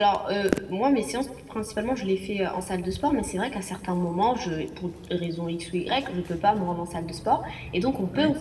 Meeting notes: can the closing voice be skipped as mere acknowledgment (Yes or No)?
Yes